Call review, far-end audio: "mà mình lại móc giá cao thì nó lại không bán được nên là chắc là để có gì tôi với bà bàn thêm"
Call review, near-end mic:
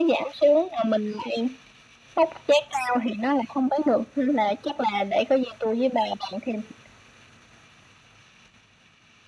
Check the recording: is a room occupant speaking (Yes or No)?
No